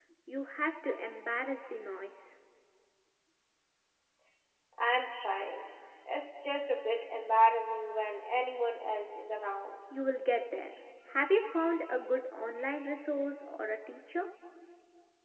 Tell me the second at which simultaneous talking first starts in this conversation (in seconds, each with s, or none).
none